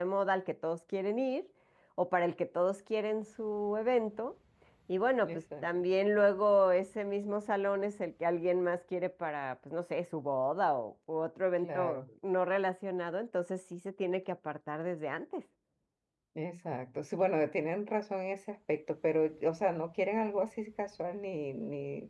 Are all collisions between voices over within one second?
Yes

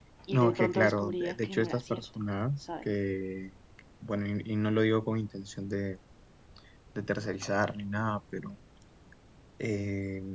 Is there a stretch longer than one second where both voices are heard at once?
Yes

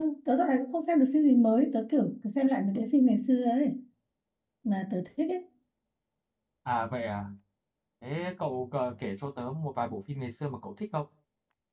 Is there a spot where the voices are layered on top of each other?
No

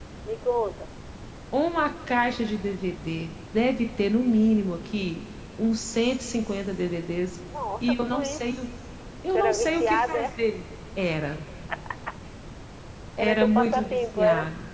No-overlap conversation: No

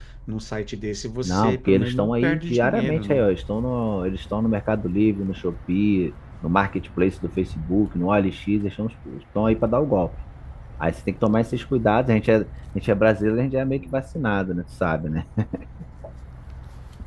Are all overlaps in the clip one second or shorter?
No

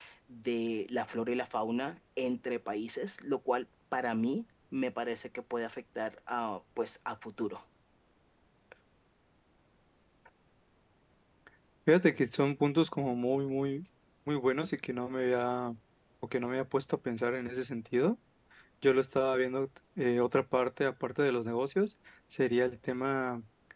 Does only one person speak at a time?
Yes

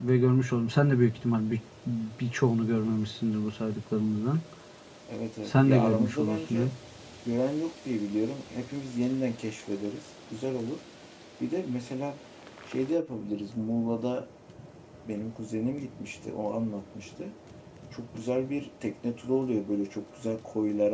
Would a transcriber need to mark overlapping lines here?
Yes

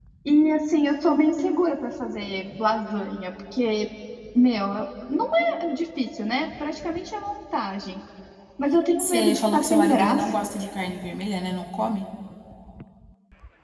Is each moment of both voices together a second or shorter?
No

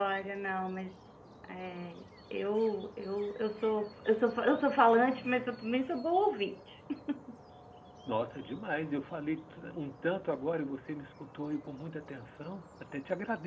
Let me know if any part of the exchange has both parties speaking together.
No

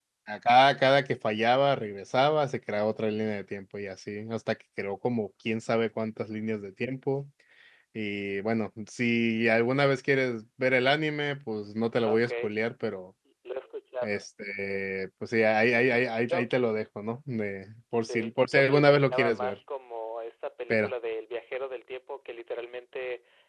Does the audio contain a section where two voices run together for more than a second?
Yes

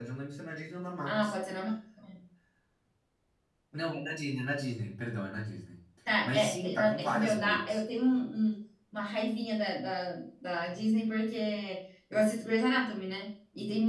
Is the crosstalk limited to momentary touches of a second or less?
No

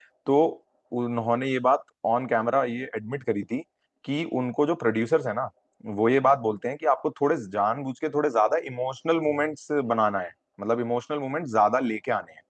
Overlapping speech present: No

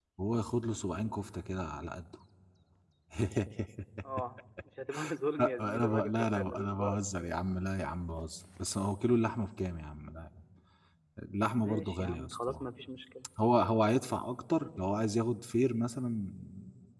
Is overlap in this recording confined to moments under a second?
No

